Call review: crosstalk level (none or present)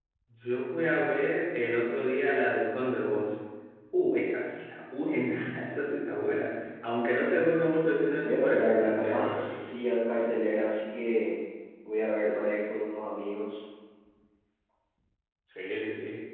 present